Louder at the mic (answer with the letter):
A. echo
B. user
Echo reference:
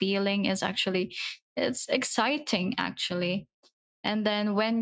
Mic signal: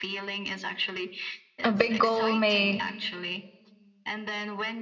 B